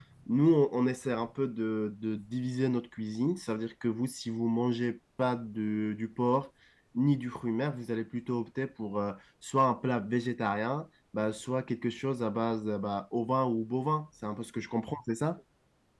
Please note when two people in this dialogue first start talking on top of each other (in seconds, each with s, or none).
none